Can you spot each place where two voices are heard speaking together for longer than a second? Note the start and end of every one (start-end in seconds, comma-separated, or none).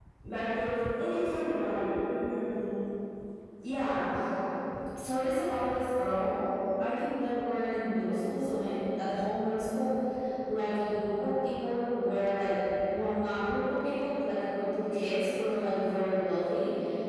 none